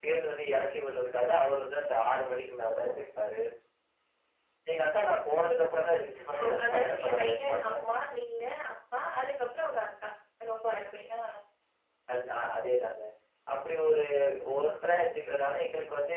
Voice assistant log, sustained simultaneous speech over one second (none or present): present